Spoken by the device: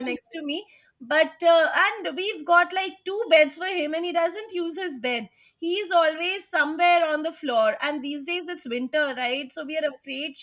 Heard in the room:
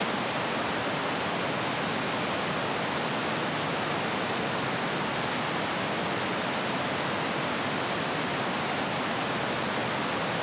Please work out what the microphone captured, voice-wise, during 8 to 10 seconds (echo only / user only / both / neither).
neither